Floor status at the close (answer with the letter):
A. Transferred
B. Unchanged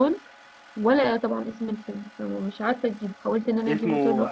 A